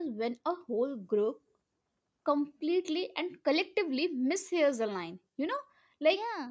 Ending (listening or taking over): listening